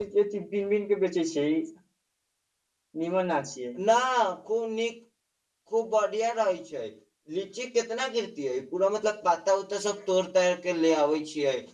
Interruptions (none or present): none